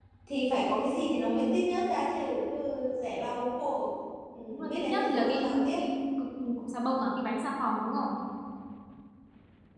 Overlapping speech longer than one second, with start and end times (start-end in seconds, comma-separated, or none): 4.5-5.8